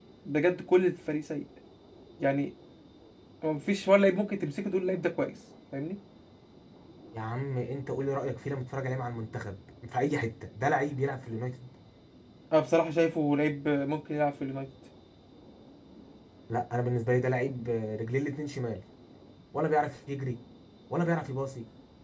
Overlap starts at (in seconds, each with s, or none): none